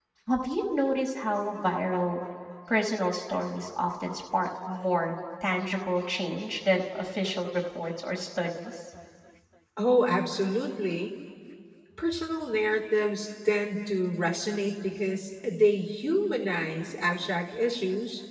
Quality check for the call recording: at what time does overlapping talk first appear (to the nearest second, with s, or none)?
none